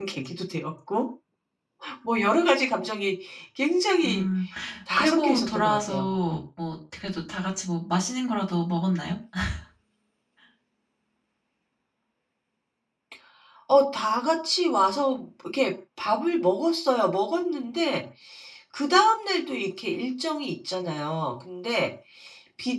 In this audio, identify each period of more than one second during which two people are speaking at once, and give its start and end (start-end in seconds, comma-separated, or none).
5.0-6.4